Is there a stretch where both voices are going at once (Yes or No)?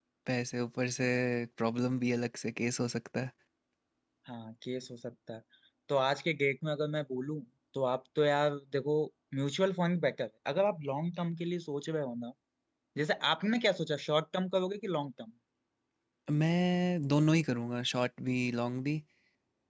No